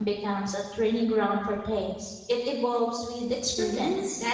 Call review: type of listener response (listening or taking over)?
taking over